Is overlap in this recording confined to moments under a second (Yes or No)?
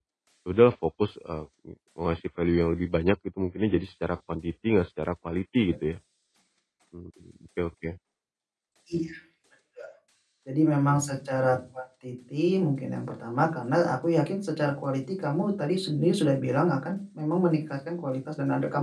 Yes